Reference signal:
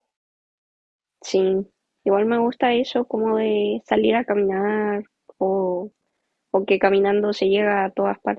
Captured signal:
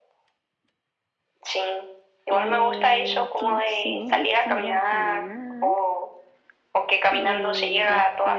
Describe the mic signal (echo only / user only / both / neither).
both